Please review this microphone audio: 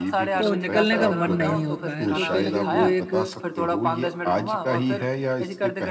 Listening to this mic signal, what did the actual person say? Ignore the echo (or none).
तो निकलने का मन नहीं होता है, तो कहीं न कहीं वो एक